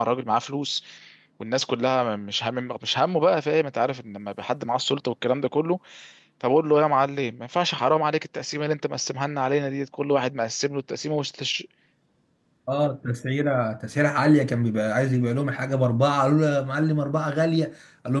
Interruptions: none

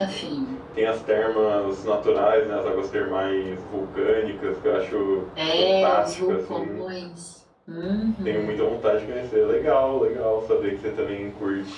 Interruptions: present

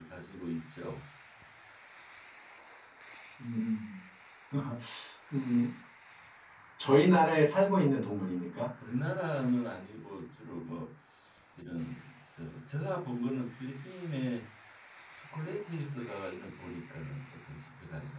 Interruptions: none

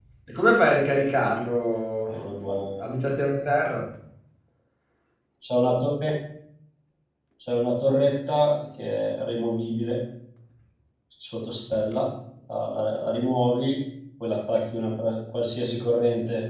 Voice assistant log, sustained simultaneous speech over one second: none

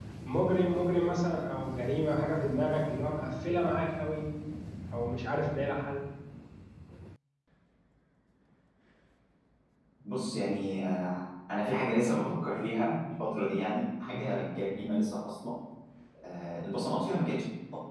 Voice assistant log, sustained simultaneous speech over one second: none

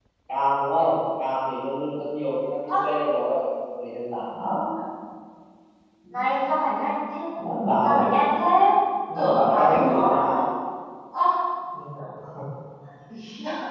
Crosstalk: present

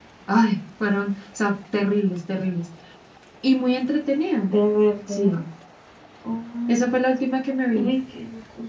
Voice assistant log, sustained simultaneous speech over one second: none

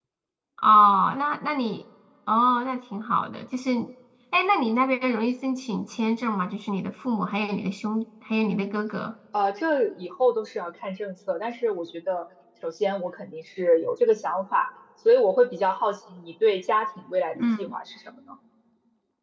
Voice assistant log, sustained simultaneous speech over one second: none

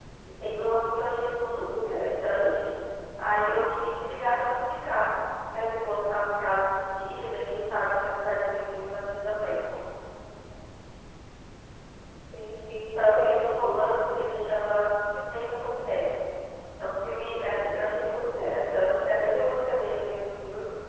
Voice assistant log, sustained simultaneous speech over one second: present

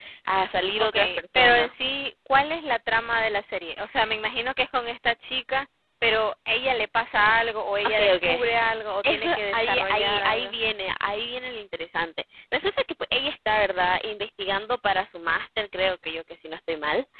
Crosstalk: present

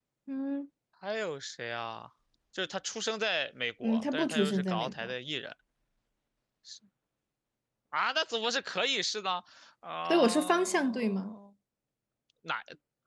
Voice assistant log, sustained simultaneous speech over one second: present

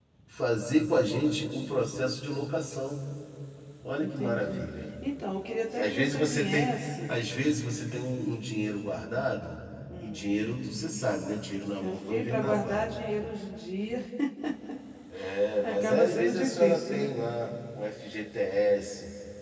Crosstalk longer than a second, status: present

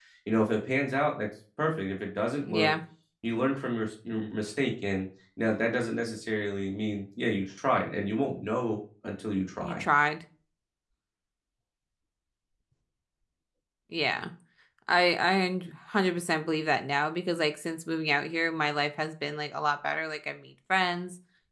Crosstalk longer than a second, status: none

